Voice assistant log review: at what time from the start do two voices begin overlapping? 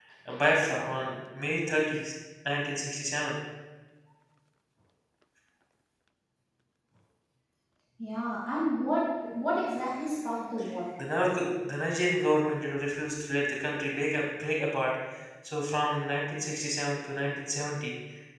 none

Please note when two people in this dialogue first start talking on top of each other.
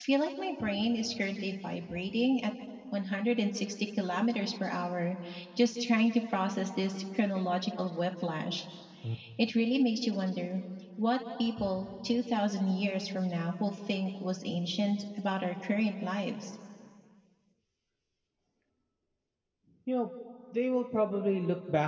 none

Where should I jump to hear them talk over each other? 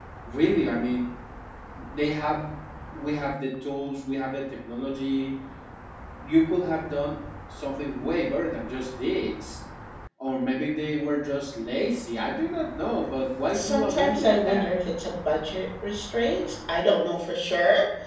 13.5 s

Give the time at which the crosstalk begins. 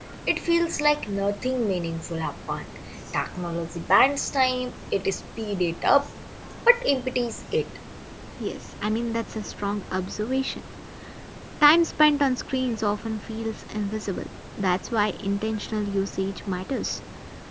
none

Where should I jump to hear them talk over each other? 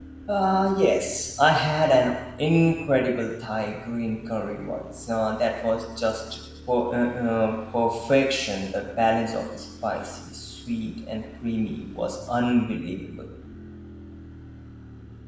none

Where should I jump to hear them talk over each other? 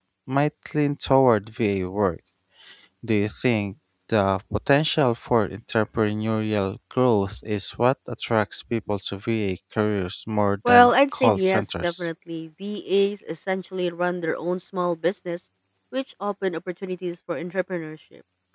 10.6 s

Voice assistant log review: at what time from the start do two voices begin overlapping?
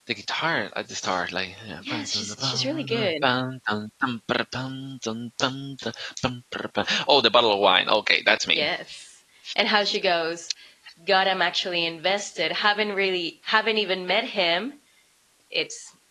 1.8 s

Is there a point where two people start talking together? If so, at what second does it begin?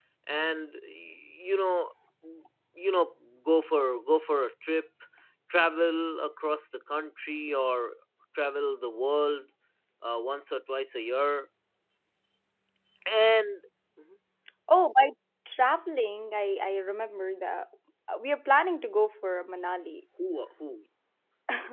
none

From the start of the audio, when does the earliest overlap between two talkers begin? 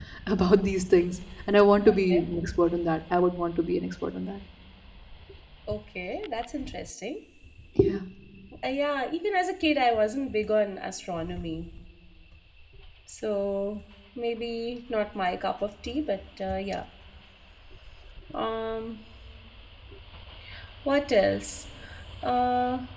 none

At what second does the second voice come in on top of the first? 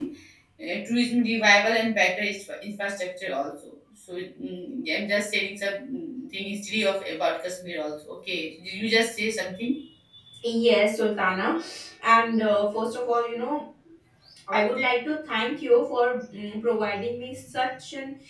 none

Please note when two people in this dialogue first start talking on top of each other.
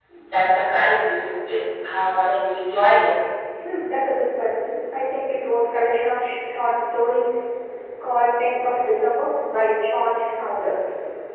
none

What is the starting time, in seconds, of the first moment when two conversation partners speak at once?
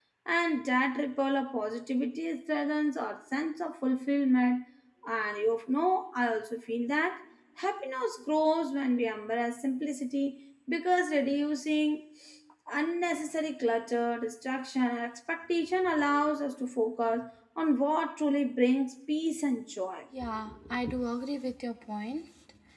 none

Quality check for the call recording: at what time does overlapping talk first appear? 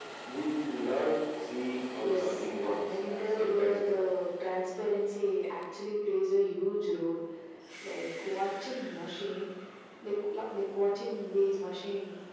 2.0 s

